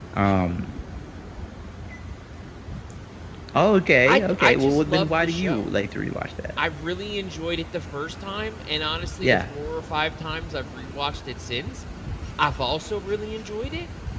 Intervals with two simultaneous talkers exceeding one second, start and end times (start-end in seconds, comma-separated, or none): 4.1-5.7